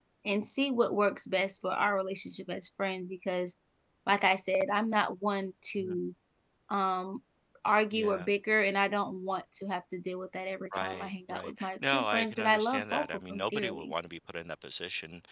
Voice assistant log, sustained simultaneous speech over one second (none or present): present